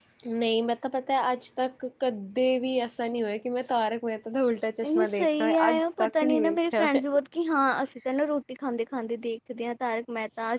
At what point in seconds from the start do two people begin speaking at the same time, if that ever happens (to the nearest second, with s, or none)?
5 s